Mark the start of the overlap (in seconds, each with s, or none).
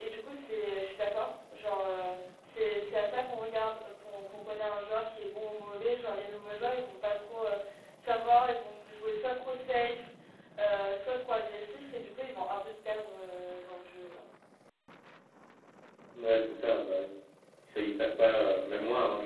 none